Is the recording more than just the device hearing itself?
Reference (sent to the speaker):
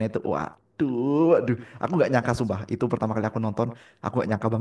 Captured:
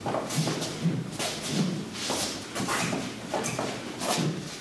No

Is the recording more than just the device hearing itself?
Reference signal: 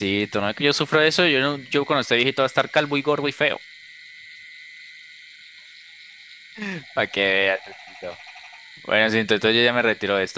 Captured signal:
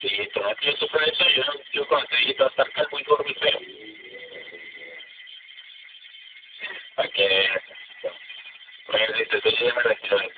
Yes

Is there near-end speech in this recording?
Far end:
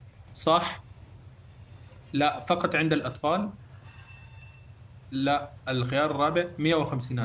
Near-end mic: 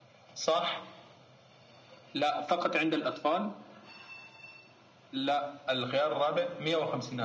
No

